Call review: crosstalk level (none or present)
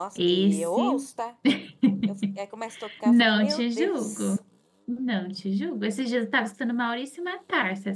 present